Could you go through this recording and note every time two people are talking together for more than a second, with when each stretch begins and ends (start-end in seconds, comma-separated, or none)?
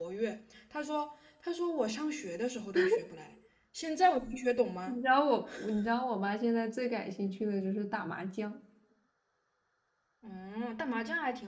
none